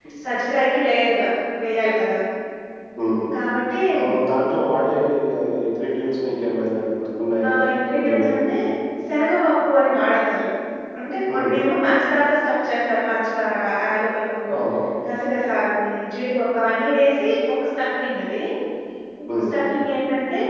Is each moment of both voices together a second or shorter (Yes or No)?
Yes